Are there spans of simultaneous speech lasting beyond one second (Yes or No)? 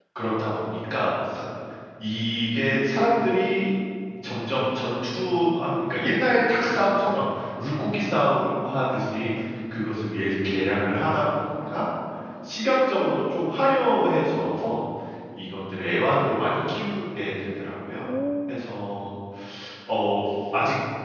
No